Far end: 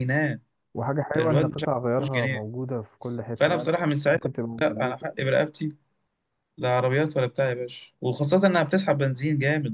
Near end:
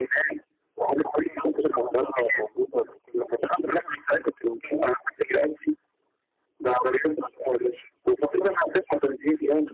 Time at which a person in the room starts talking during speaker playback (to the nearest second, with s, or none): none